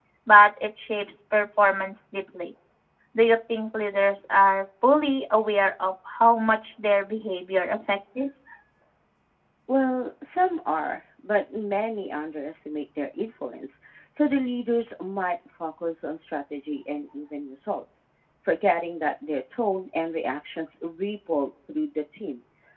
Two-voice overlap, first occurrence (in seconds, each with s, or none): none